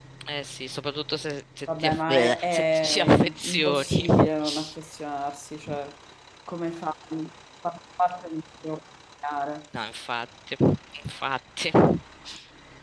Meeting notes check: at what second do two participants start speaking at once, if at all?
1.7 s

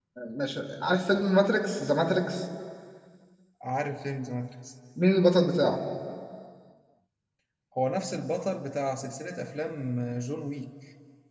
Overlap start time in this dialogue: none

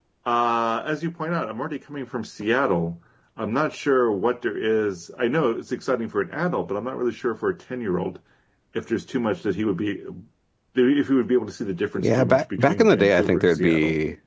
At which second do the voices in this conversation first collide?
12.0 s

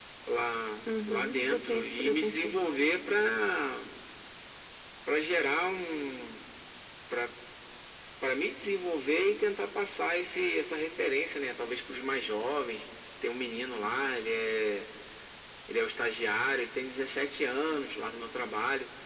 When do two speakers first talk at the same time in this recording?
0.9 s

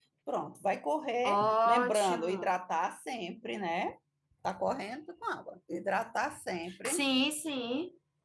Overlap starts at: 1.2 s

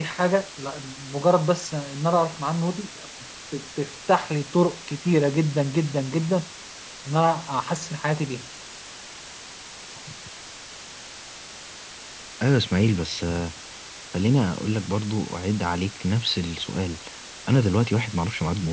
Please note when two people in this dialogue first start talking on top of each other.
none

